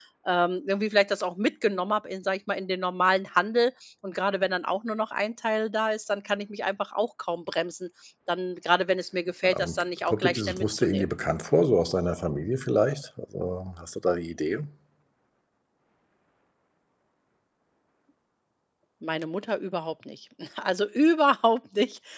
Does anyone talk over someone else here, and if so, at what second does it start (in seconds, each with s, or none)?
9.4 s